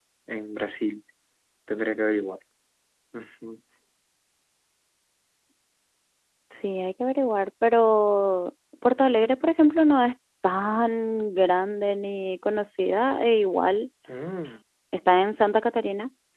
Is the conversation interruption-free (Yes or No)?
Yes